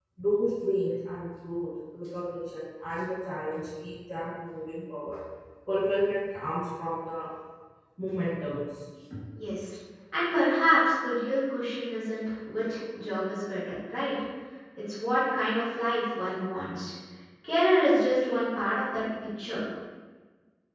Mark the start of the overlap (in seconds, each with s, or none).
none